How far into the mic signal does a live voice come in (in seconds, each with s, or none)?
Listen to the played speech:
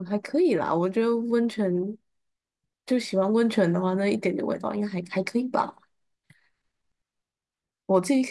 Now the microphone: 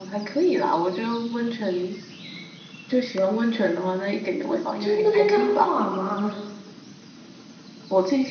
4.5 s